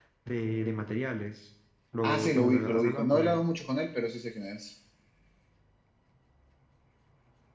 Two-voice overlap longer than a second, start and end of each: 2.0-3.5

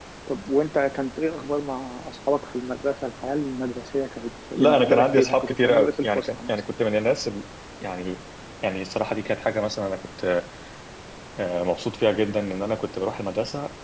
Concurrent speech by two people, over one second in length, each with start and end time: 4.5-6.5

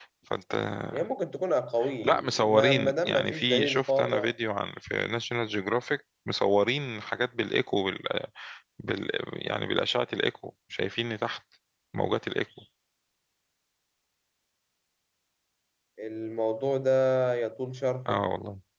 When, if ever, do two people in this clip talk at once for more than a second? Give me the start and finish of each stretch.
2.0-4.3

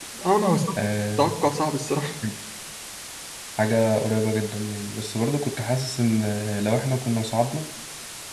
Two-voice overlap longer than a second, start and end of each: none

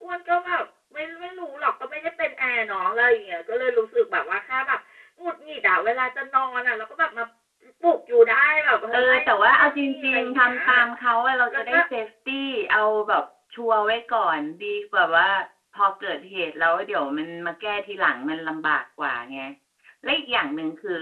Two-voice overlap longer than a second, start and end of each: 8.9-10.6

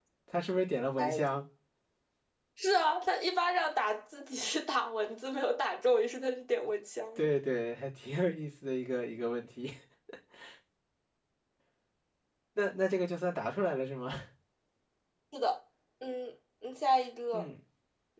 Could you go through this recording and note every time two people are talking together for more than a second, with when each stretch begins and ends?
none

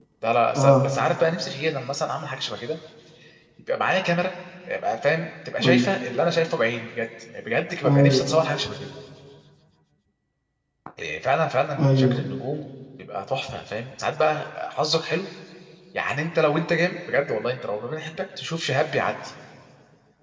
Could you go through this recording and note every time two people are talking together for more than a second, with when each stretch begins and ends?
none

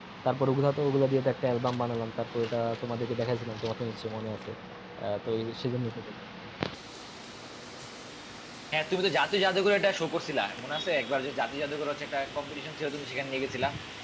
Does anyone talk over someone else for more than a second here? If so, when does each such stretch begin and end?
none

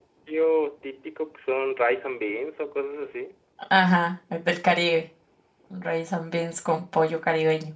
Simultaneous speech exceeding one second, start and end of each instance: none

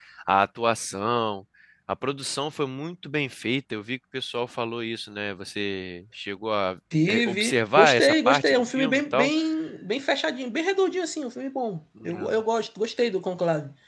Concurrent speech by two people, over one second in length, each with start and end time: 7.1-9.3

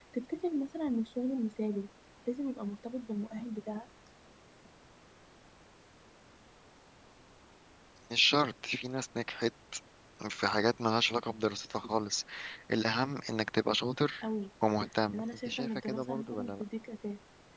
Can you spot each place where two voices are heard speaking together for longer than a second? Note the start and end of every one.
15.1-16.6

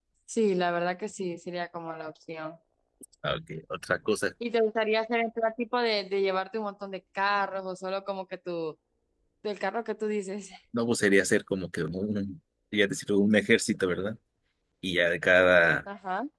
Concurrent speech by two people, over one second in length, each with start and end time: none

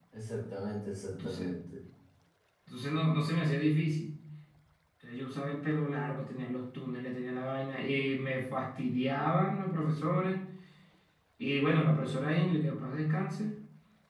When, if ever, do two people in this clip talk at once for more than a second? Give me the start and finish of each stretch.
none

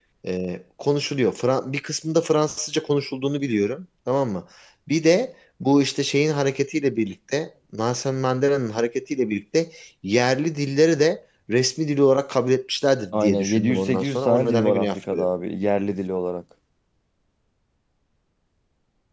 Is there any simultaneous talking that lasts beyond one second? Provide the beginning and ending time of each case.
13.1-15.3

